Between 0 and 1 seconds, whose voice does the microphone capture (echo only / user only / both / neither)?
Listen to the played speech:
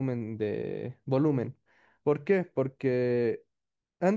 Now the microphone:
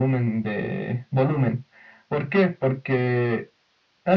echo only